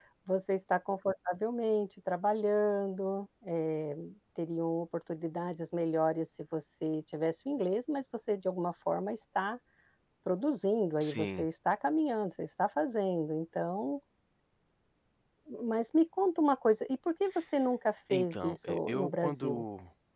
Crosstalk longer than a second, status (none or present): present